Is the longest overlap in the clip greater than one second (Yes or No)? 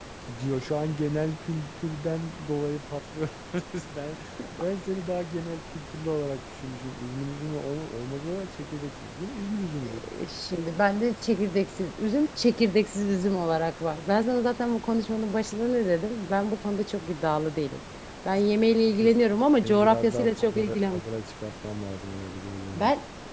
Yes